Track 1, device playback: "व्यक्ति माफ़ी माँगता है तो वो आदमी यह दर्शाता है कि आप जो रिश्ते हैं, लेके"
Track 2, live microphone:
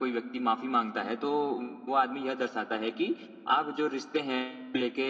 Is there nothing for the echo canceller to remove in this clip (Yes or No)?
No